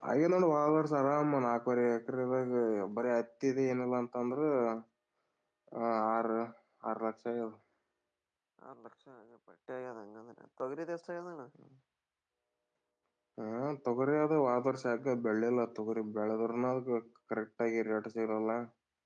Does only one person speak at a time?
Yes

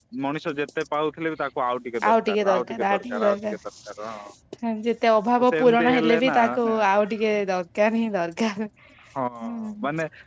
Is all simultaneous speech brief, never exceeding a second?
No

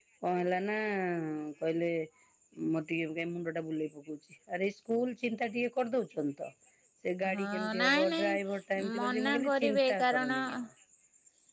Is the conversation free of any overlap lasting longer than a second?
No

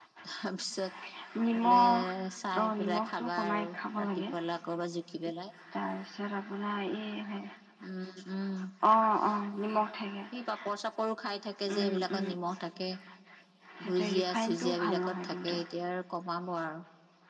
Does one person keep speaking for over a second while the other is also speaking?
Yes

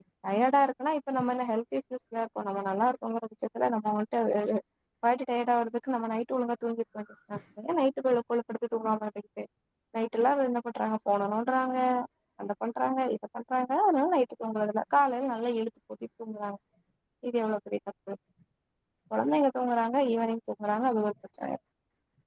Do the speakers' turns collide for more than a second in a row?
No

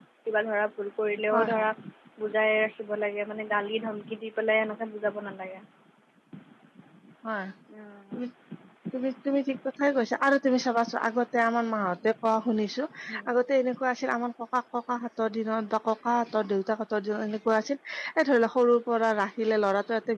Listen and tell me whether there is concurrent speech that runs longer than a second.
No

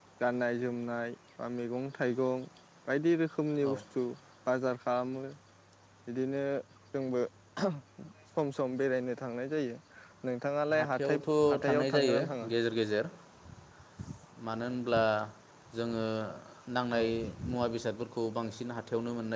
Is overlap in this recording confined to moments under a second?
No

